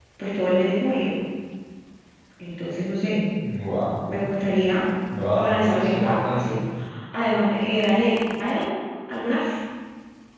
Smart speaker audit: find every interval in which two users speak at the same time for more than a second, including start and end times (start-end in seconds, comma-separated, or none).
5.3-6.6